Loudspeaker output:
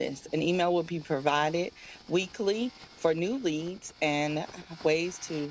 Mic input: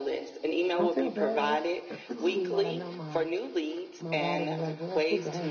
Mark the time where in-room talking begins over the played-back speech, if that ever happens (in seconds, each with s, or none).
0.8 s